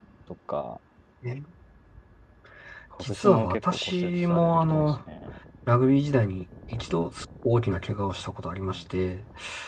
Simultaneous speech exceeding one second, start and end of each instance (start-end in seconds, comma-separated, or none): 3.0-4.9